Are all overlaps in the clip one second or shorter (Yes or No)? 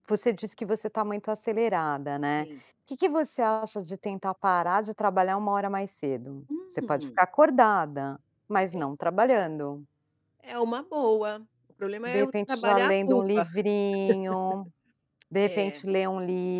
No